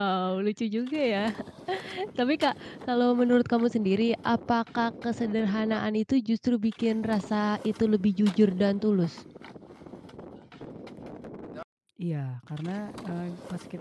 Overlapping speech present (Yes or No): No